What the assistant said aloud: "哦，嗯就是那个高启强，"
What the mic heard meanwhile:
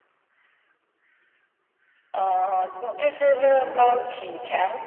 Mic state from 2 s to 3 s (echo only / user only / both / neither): echo only